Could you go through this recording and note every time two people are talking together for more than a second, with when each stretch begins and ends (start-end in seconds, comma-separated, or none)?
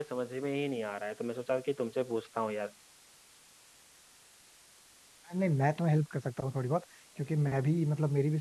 none